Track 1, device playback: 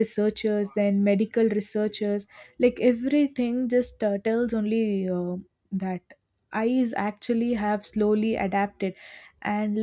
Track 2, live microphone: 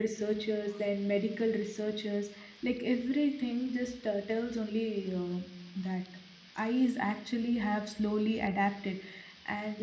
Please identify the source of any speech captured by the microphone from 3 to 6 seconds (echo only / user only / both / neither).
echo only